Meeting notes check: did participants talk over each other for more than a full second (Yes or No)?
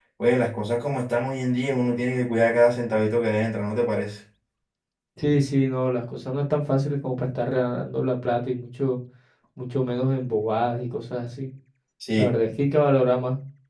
No